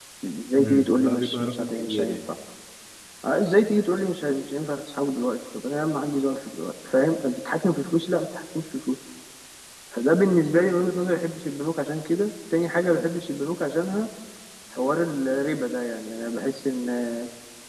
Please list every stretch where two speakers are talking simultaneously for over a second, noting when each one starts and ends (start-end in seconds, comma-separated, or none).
0.6-2.2